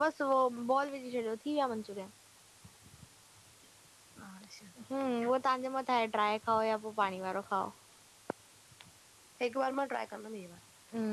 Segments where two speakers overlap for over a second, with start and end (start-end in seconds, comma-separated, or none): none